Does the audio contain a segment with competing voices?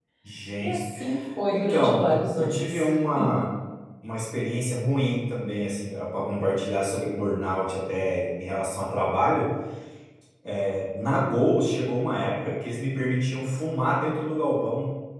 Yes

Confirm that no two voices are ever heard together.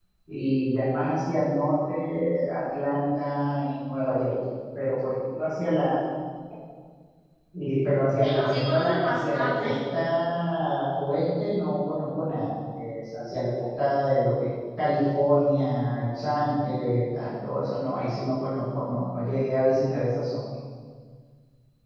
No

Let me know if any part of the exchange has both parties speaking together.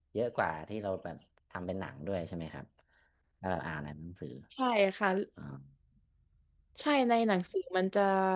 No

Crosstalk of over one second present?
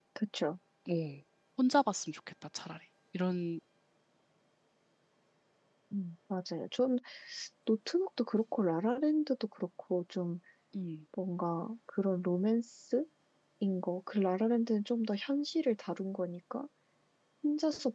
No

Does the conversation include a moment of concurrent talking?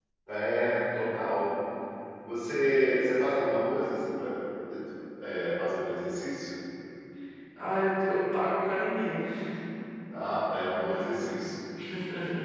No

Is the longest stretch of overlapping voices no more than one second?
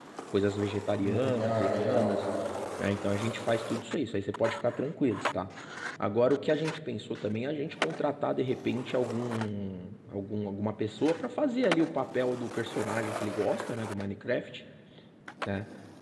No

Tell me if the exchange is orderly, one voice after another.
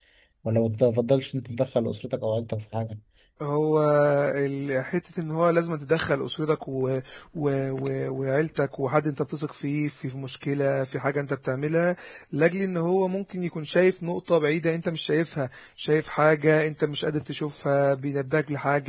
Yes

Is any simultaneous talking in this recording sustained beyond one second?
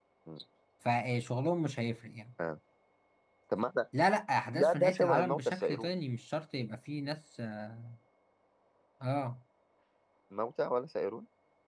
Yes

